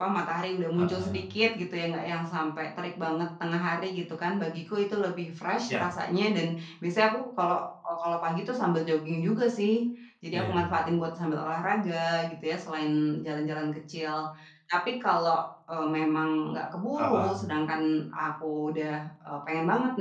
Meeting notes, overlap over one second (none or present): none